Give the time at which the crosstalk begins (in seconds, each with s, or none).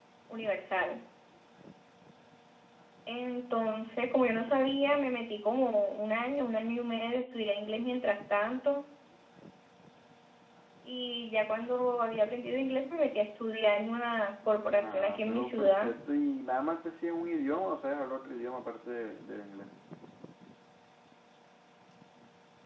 14.7 s